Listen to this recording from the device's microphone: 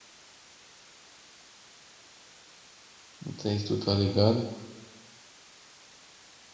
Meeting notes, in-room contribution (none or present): present